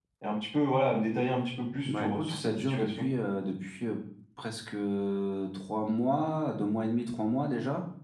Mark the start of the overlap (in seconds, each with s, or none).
1.8 s